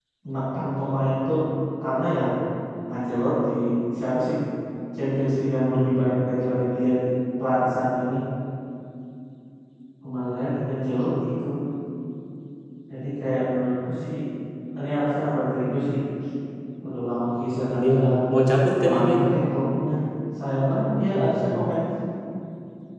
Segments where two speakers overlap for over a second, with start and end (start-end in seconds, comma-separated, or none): none